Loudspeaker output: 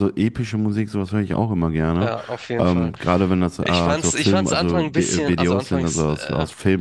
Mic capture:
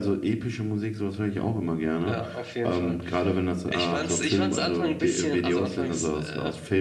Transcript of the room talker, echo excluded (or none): none